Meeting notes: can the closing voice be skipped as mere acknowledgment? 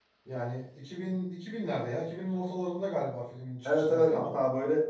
No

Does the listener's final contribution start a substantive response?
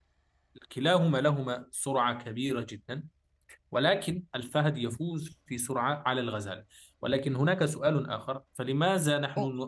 No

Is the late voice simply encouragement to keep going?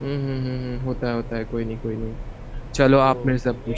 No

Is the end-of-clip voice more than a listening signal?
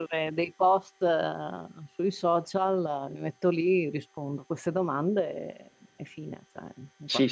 Yes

